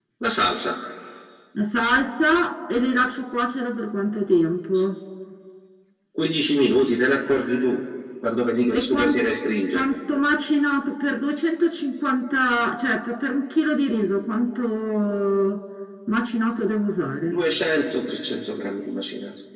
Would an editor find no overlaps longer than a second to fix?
Yes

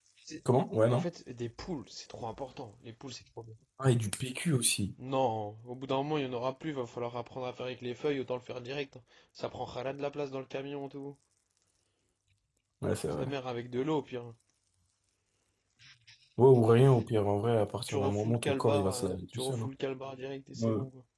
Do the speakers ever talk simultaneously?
Yes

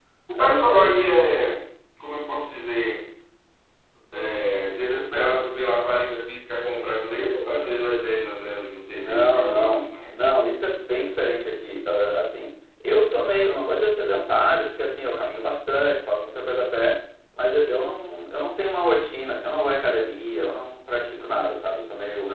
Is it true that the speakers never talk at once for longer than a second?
No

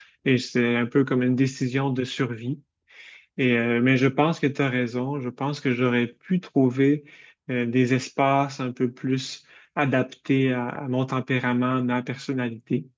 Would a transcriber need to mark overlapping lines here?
No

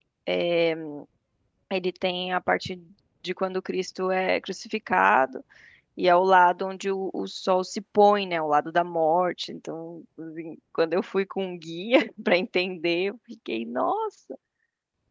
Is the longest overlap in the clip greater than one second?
No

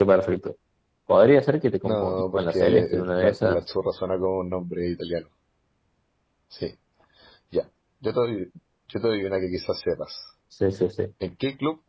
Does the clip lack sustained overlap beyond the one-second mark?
No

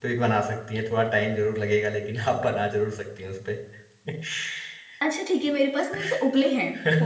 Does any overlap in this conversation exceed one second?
No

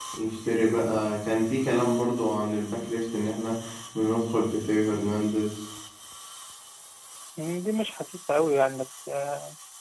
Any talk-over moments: No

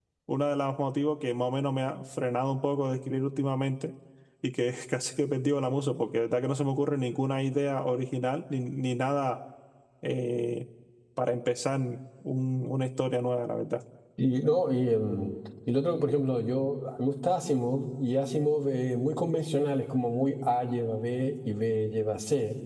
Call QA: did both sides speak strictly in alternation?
Yes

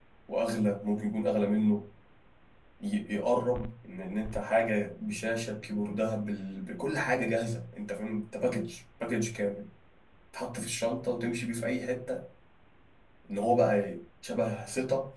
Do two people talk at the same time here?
No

